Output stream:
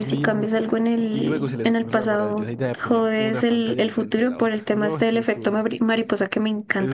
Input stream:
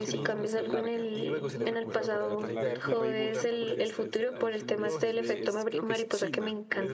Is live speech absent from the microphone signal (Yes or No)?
No